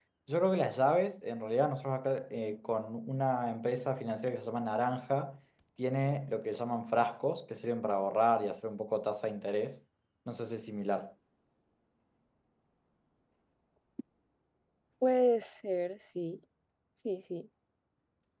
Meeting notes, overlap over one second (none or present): none